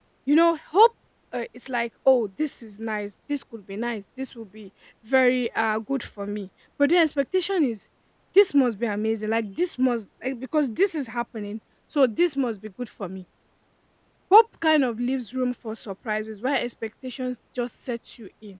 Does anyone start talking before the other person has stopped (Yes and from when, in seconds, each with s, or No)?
No